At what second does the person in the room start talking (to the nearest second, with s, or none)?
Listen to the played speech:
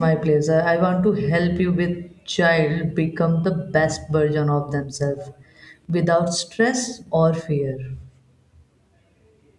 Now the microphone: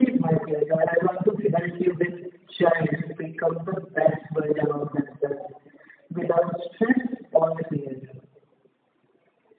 none